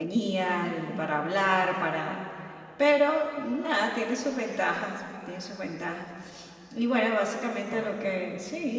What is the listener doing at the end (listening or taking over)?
listening